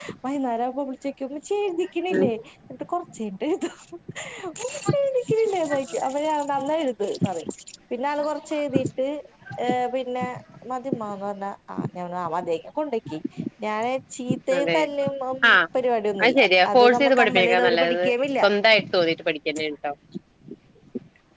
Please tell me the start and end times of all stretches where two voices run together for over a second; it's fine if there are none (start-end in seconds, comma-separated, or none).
16.2-18.0